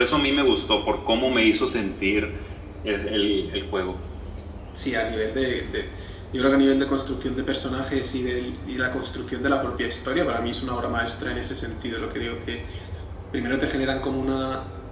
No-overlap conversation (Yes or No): Yes